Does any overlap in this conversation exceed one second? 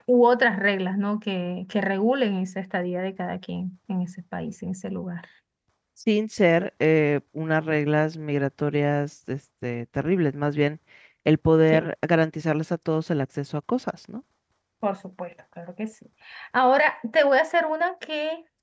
No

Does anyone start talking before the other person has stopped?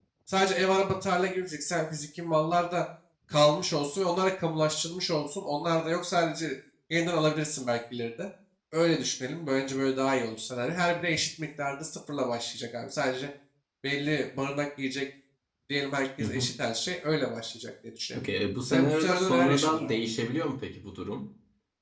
Yes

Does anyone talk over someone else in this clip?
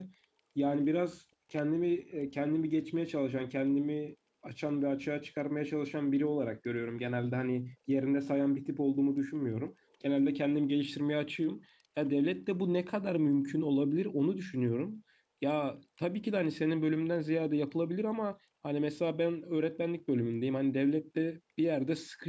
No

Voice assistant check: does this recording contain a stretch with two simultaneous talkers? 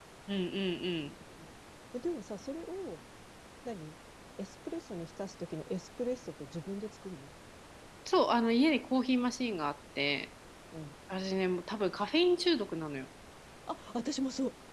No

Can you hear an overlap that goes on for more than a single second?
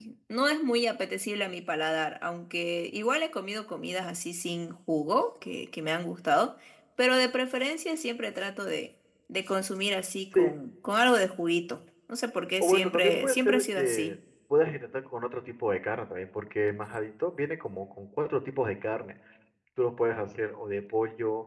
Yes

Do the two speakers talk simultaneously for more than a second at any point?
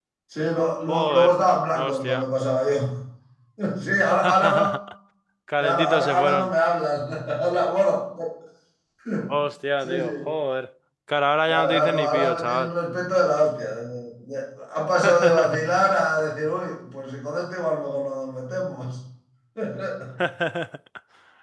Yes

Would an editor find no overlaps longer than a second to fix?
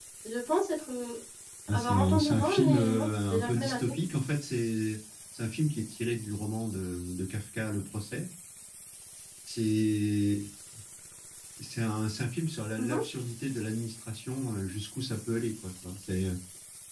No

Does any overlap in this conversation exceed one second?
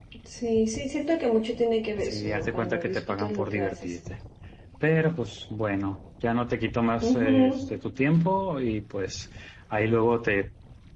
Yes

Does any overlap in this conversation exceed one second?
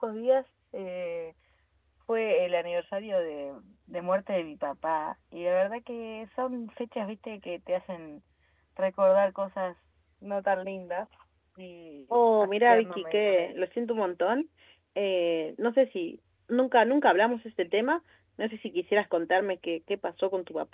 Yes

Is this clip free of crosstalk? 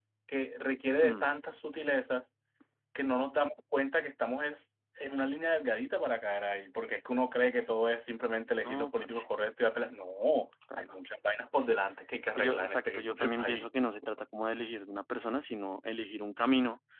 No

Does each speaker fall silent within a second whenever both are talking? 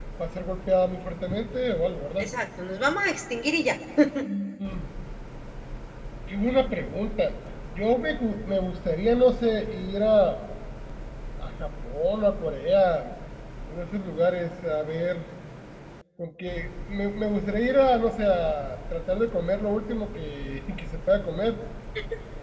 Yes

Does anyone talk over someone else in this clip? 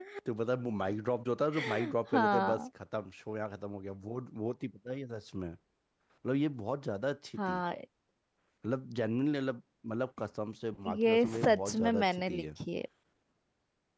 Yes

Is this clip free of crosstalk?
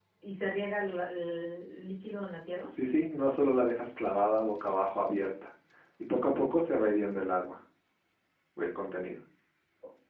Yes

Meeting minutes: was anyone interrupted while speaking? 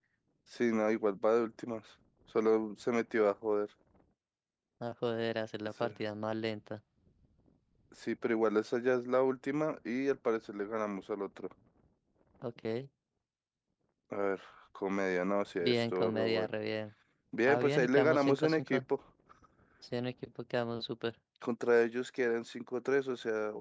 Yes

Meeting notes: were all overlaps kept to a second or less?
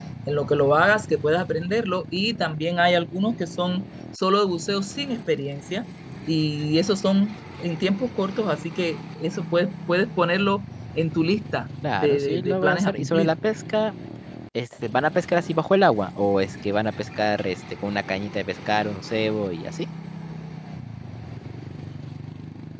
No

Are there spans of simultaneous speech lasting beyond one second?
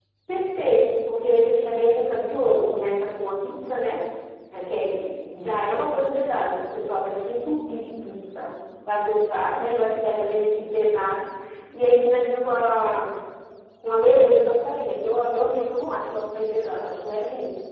No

